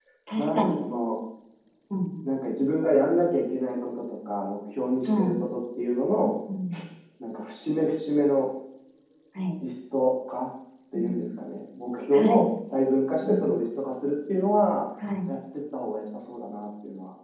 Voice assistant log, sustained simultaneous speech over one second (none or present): none